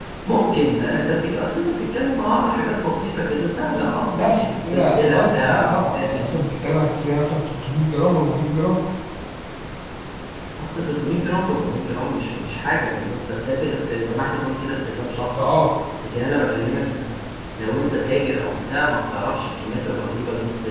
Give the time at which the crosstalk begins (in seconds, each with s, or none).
4.1 s